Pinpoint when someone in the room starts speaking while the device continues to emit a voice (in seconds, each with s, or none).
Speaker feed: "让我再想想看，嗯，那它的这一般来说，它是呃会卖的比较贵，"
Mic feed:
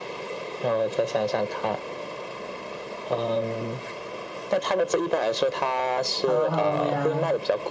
6.2 s